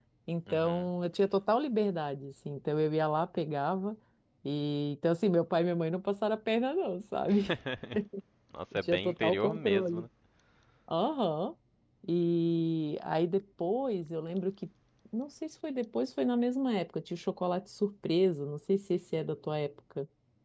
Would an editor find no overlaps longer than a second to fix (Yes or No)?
No